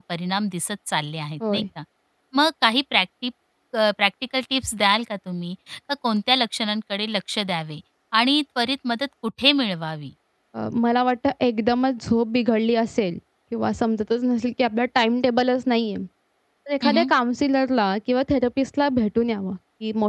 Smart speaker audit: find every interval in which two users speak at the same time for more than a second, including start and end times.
none

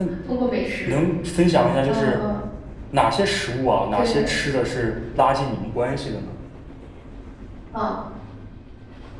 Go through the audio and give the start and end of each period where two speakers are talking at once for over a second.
none

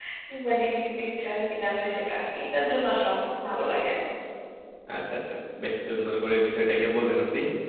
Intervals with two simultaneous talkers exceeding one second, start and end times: none

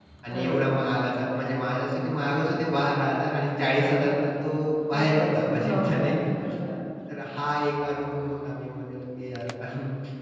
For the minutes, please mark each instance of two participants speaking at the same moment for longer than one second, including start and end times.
4.9-6.1

